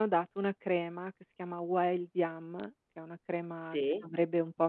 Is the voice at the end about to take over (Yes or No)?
No